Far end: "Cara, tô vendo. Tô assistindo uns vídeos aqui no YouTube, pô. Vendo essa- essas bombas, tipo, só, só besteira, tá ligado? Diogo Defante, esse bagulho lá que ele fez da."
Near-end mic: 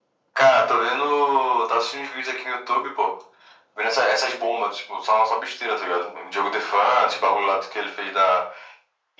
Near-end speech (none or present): none